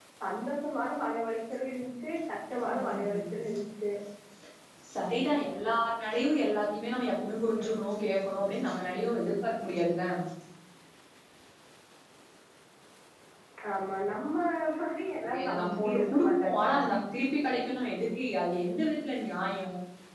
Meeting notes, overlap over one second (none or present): present